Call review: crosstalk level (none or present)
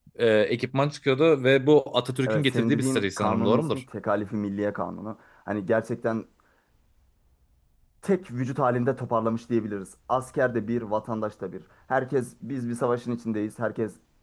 present